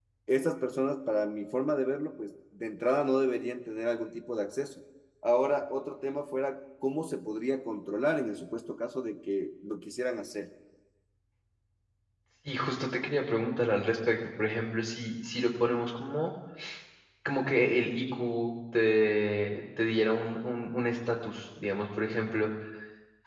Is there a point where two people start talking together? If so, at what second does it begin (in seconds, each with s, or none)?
none